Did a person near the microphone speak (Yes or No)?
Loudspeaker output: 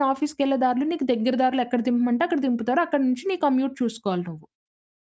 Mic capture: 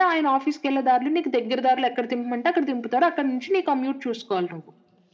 No